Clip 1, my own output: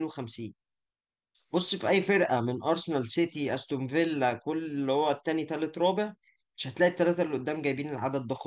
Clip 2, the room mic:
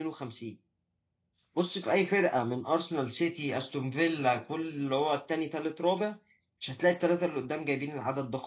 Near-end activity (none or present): none